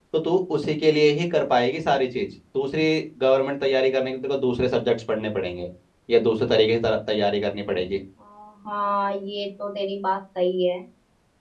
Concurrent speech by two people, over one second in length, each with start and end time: none

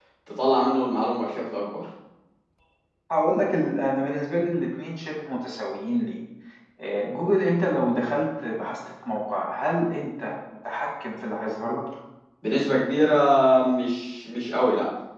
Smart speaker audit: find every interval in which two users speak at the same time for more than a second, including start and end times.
none

